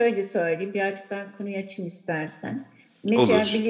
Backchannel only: Yes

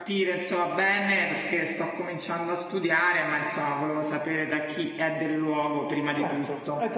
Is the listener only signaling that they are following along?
No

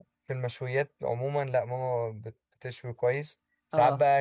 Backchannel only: Yes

